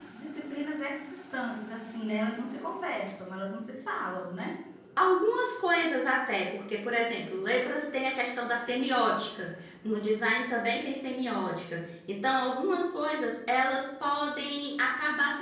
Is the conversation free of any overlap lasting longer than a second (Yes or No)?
Yes